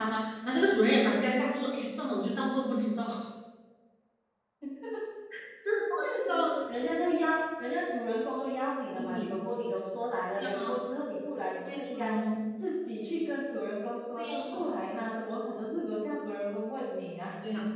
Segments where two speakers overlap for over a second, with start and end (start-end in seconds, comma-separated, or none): none